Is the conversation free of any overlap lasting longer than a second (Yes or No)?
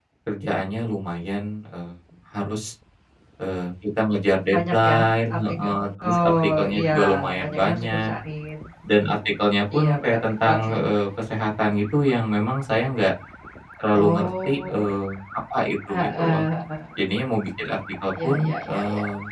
No